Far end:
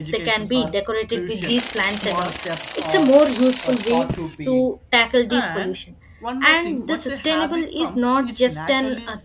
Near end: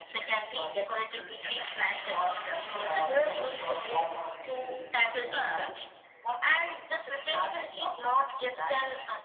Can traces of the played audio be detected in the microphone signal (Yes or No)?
Yes